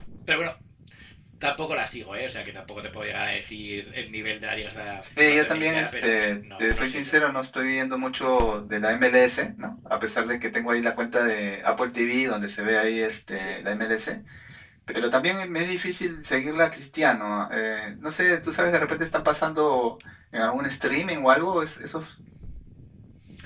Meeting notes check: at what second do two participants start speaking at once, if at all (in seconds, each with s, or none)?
5.2 s